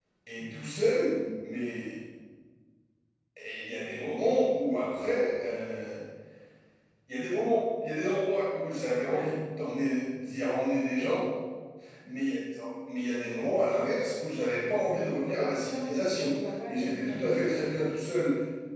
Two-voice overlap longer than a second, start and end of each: 15.3-17.3

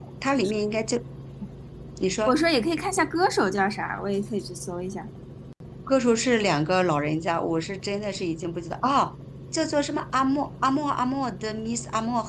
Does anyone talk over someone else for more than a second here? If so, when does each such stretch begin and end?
none

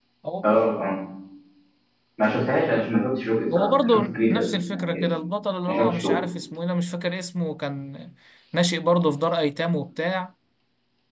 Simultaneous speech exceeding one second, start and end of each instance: 3.6-5.1

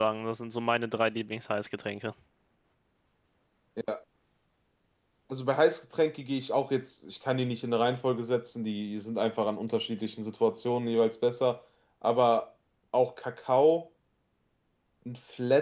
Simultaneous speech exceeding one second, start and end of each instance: none

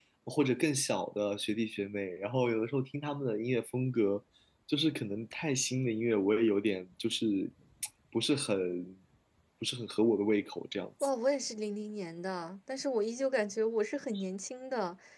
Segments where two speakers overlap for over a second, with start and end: none

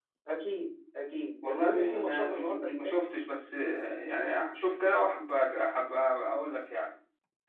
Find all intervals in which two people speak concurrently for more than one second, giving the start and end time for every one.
1.4-3.0

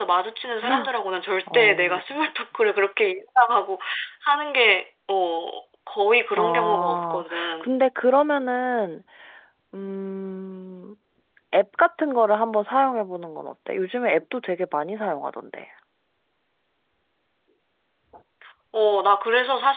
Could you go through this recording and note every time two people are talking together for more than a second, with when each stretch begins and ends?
6.3-7.7

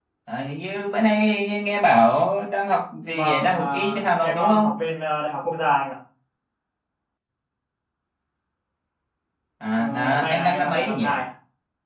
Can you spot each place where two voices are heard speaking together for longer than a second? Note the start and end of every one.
3.1-4.7, 9.8-11.1

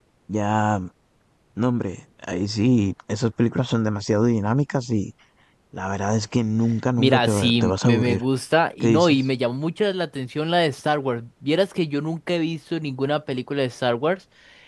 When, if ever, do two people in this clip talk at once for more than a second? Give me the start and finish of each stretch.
7.0-8.2

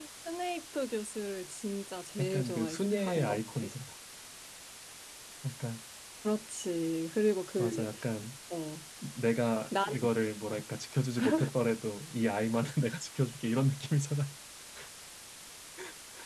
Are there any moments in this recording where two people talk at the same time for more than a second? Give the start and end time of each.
2.2-3.7

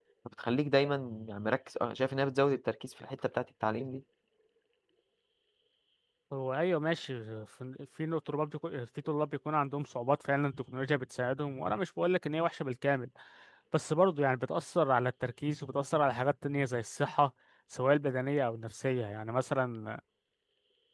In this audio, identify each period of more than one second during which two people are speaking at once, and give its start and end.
none

